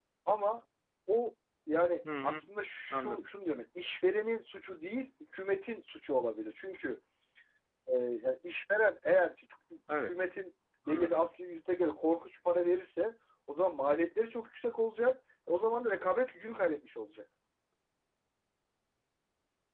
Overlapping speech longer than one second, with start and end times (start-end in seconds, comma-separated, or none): none